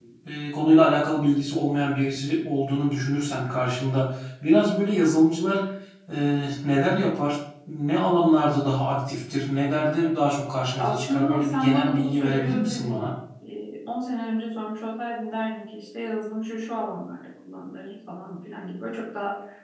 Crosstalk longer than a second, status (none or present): present